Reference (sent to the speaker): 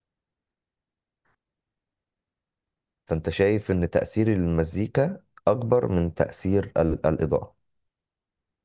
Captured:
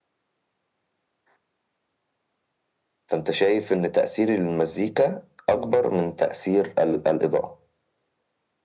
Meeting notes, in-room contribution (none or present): none